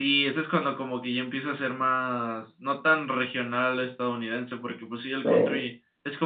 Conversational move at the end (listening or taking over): listening